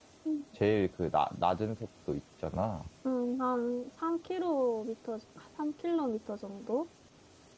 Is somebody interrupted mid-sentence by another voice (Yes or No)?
No